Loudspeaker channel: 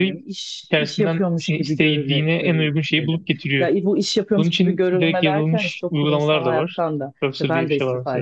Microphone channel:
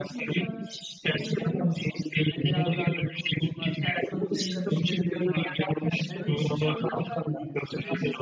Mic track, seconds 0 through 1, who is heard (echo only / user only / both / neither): both